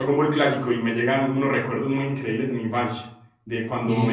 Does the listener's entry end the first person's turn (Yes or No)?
No